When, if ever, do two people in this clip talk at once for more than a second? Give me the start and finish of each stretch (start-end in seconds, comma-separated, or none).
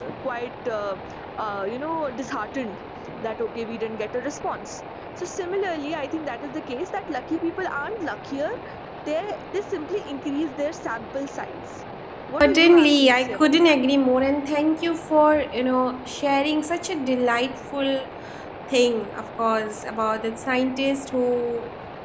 12.4-13.8